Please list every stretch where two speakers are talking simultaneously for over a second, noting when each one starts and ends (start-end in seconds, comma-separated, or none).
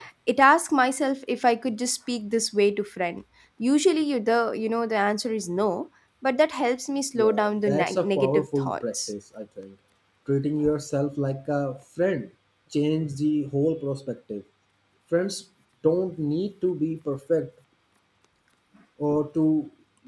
7.2-9.1